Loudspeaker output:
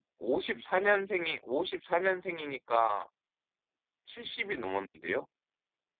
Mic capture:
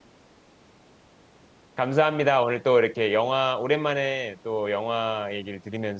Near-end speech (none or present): present